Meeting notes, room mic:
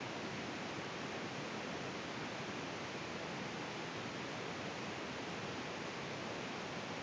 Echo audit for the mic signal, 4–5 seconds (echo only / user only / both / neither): neither